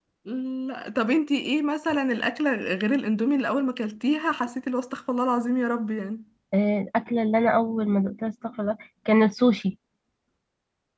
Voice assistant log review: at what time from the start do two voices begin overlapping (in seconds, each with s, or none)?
none